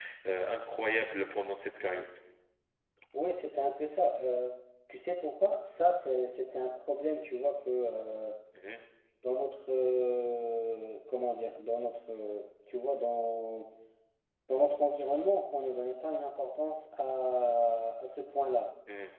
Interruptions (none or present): none